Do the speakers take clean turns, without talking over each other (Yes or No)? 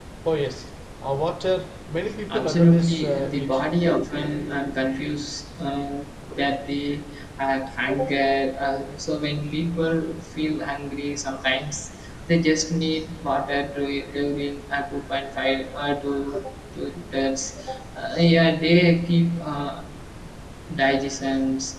No